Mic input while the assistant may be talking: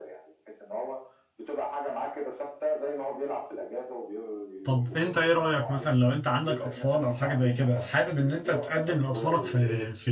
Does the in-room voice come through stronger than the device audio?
Yes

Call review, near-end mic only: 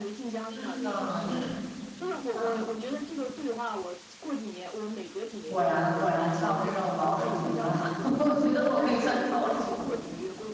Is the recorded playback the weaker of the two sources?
Yes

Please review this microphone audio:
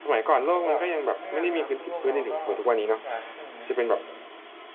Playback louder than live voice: Yes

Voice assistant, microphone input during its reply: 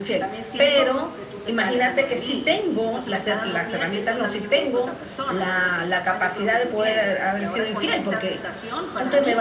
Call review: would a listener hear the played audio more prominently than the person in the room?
Yes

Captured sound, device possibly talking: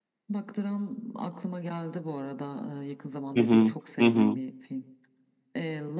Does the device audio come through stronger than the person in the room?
No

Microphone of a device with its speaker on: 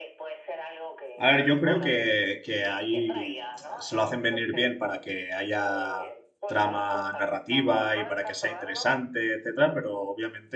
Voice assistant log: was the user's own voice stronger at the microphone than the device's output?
Yes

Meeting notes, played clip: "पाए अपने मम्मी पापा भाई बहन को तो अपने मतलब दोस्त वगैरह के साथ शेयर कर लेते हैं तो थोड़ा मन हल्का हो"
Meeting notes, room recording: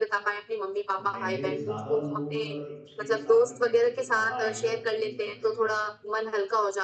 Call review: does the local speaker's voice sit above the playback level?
No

